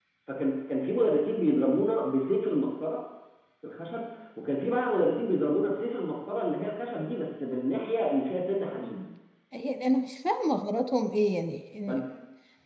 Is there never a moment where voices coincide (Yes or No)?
Yes